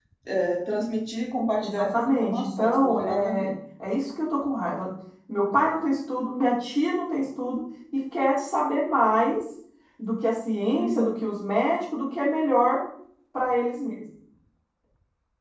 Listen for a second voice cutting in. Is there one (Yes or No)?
Yes